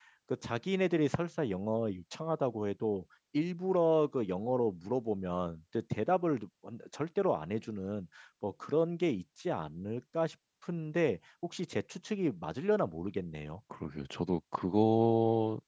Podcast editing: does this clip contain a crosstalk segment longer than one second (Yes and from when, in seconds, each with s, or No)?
No